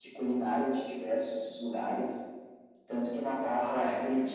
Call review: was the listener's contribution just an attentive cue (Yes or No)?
Yes